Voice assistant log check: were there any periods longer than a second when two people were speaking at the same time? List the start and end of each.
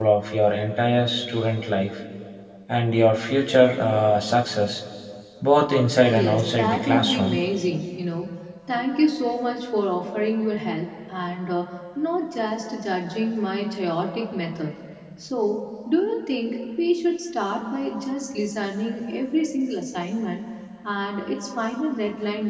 6.1-7.4

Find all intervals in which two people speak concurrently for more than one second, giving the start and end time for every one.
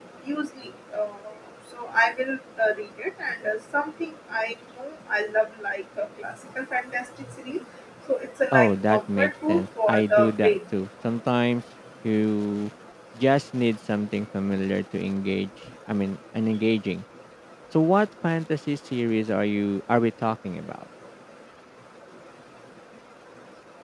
8.5-10.6

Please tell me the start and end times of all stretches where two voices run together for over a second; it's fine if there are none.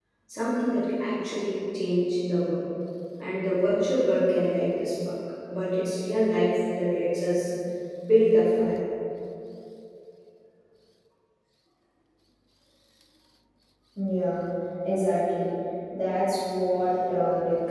none

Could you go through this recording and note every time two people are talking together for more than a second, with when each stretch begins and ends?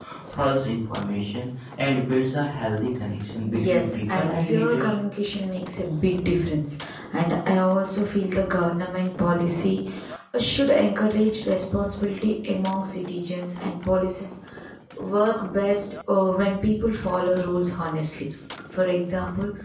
3.5-4.9

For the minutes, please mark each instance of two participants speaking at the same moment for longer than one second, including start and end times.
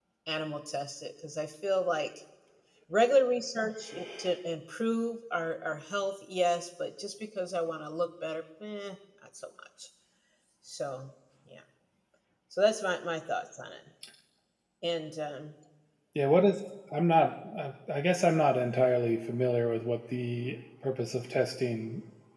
none

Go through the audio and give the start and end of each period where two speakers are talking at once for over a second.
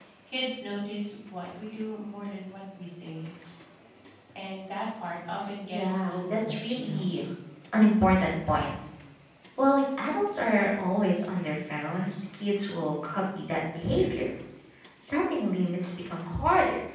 5.7-7.1

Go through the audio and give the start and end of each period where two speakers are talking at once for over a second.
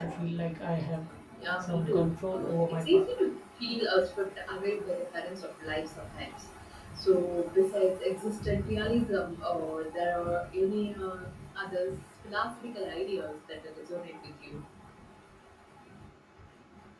1.6-3.0

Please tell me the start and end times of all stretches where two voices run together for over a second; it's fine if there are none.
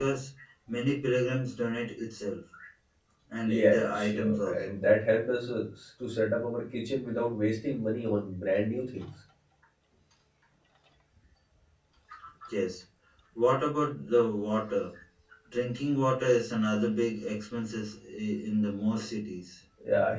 3.4-4.8

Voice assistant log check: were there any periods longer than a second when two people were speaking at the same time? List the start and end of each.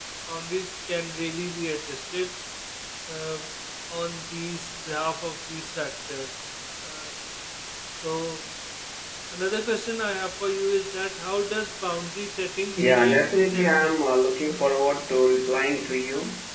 12.8-14.2

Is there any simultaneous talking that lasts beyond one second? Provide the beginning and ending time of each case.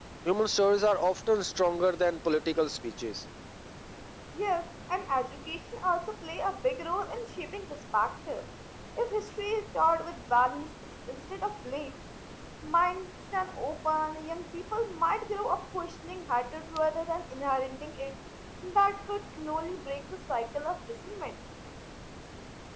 none

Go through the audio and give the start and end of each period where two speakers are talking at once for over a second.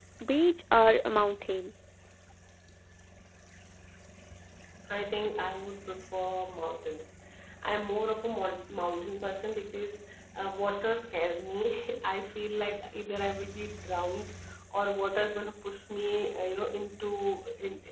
none

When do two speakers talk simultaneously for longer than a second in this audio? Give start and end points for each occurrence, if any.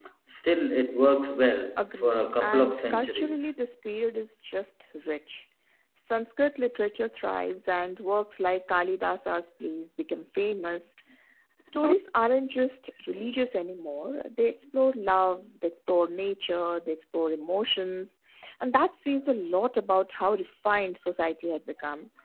1.8-3.5

